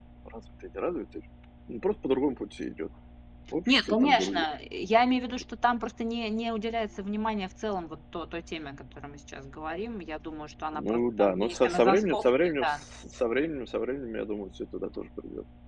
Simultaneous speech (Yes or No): Yes